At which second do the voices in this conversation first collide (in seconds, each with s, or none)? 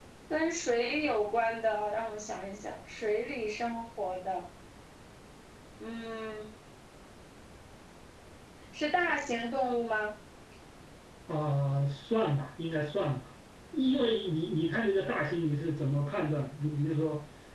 none